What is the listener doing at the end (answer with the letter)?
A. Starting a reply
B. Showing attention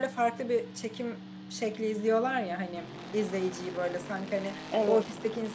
B